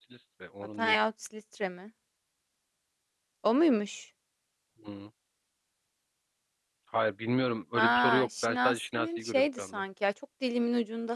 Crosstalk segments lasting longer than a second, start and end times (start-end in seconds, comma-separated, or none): 7.8-9.8